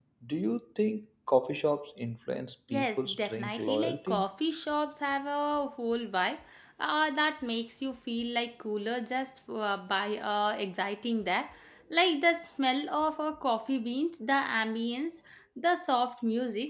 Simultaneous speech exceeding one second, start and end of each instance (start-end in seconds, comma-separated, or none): 2.7-4.3